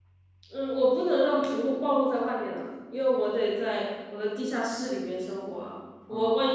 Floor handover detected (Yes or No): No